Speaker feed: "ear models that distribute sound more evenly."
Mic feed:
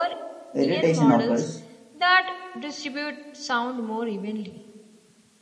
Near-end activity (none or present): present